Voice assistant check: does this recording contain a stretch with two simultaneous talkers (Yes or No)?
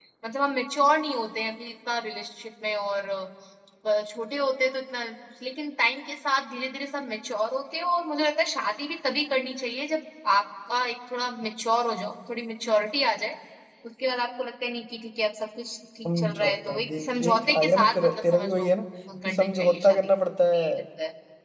Yes